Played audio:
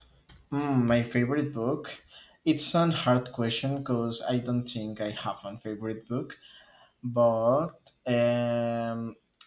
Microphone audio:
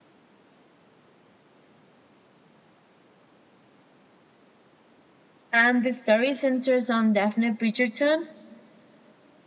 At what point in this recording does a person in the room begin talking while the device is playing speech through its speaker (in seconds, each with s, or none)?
5.5 s